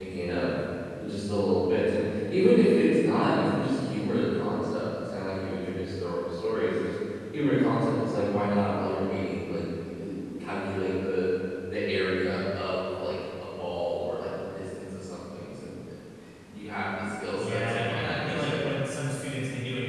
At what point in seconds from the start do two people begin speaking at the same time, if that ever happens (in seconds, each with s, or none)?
17.4 s